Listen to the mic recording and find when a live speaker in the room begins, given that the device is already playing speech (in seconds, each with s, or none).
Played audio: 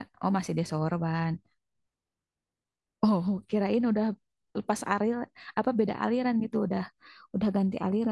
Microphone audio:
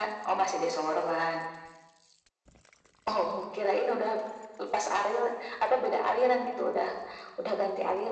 none